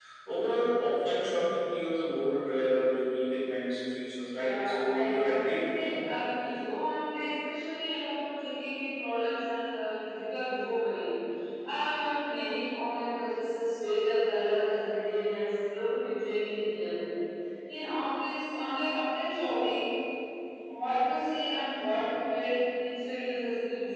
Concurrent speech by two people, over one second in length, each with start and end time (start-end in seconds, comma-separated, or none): 4.3-5.9